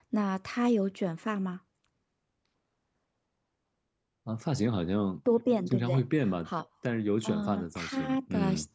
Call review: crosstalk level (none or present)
present